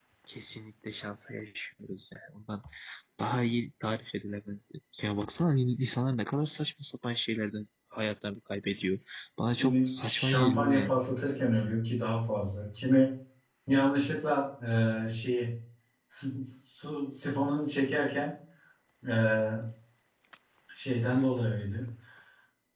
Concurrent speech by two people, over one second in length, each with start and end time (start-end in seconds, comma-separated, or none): 9.6-10.9